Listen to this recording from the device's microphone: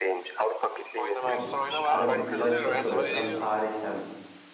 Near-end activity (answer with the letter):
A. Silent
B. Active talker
B